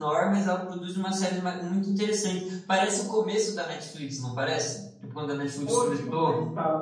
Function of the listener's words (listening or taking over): taking over